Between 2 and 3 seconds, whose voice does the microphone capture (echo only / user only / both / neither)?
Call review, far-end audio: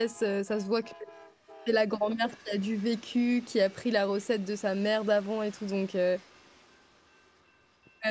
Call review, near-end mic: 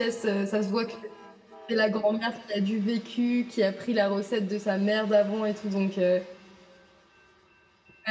echo only